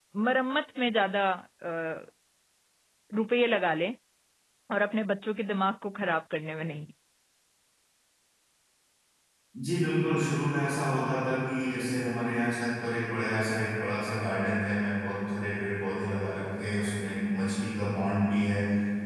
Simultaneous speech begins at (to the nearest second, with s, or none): none